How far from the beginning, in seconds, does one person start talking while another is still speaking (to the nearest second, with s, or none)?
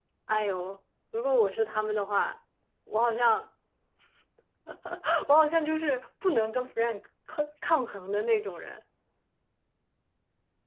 none